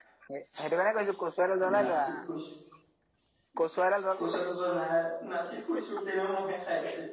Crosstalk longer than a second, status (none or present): none